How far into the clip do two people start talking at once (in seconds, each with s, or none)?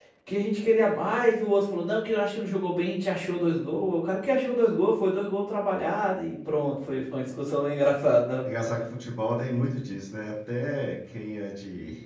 none